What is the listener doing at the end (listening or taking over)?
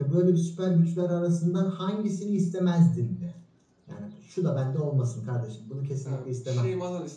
taking over